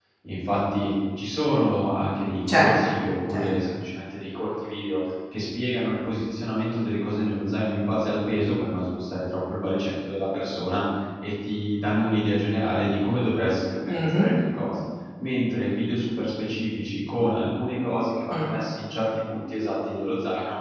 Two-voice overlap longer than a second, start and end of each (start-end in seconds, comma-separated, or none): none